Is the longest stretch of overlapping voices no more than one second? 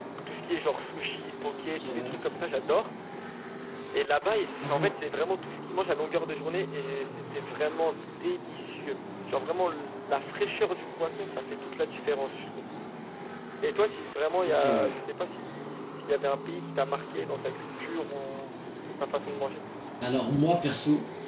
Yes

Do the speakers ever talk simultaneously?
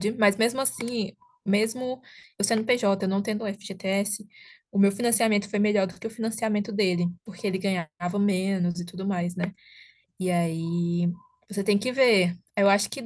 No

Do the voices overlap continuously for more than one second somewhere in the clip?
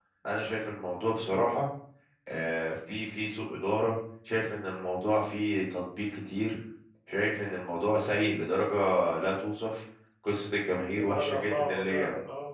Yes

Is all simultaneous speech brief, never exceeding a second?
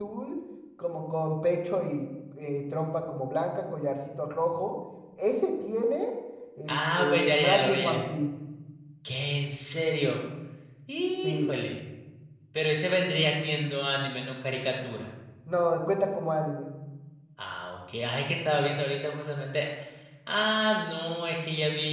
No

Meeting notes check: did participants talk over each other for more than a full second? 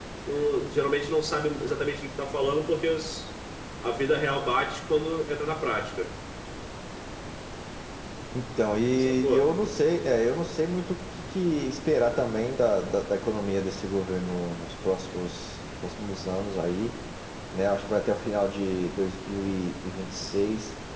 No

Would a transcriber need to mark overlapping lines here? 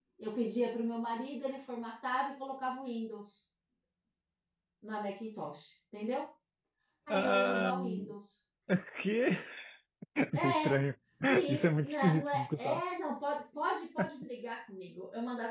Yes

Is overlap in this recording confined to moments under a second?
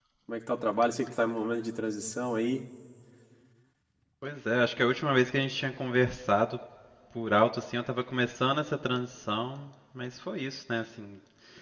Yes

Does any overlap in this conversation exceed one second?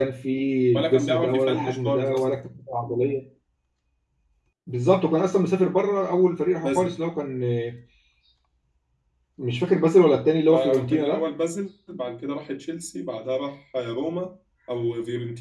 Yes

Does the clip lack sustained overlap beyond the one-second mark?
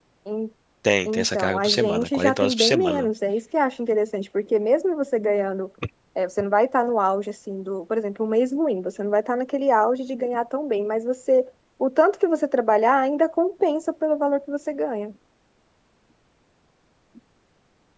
No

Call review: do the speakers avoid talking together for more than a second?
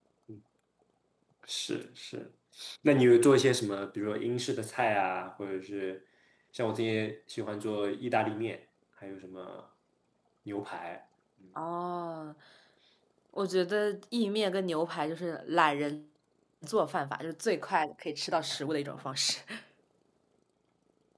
Yes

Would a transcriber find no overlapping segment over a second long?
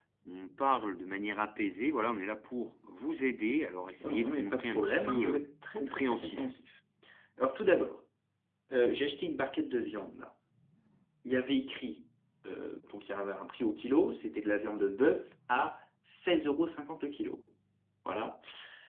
No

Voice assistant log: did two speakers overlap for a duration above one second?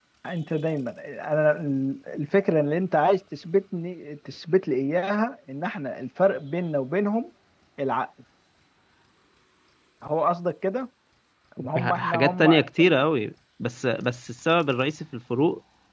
Yes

